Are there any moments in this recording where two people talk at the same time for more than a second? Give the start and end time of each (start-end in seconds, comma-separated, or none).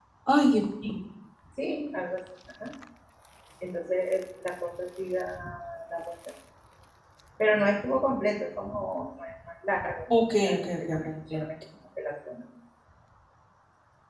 10.1-11.4